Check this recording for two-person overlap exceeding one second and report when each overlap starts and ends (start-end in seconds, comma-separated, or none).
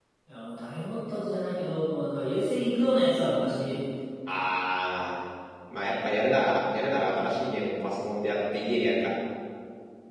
none